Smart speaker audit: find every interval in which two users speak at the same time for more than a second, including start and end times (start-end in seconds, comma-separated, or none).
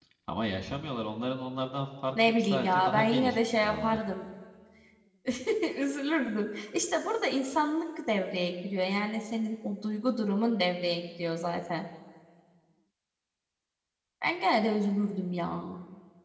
2.3-4.0